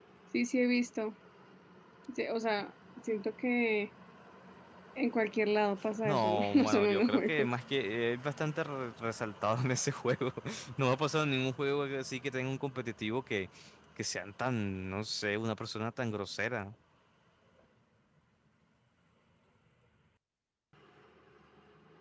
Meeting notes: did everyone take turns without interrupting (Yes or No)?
No